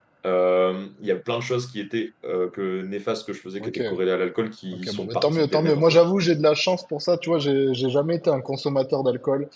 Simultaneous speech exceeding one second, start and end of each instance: 4.7-6.0

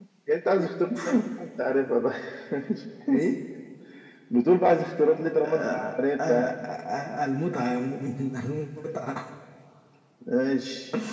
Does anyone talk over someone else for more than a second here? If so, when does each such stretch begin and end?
5.4-6.7

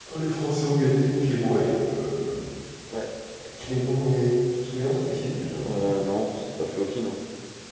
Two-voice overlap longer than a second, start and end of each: none

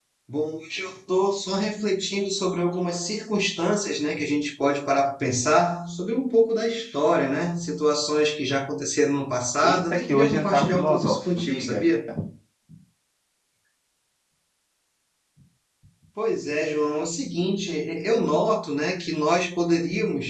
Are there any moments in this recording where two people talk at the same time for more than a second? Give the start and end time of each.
9.6-11.8

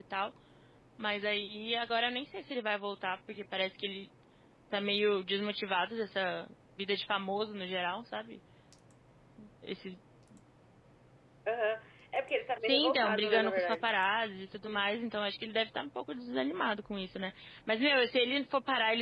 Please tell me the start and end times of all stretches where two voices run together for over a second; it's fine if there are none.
12.6-13.9

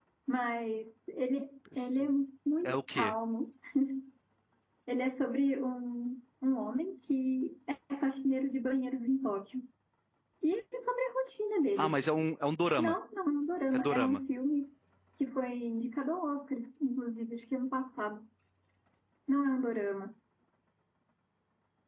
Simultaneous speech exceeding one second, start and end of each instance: none

